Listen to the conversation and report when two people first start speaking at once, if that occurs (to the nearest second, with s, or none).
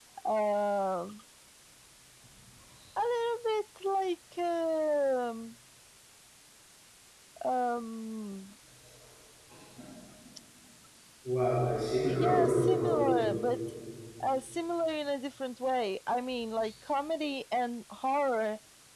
12 s